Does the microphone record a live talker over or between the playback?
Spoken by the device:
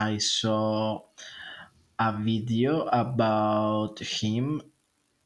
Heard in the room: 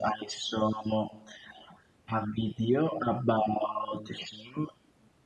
No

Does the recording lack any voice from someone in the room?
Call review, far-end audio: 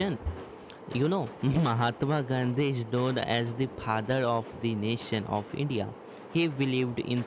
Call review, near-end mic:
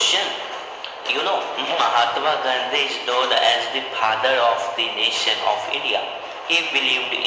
Yes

